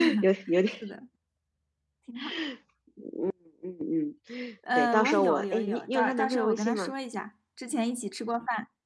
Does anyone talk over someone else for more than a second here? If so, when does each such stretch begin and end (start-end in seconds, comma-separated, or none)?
4.8-6.9